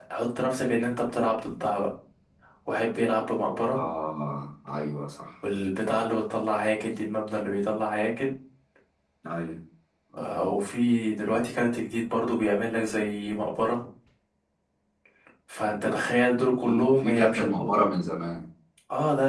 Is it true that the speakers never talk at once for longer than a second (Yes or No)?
No